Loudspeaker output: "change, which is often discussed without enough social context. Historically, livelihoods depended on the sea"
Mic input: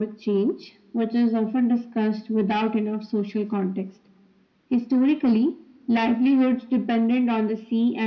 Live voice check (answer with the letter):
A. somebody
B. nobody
B